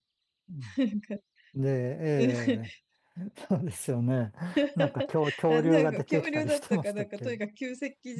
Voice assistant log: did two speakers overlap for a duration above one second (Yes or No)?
Yes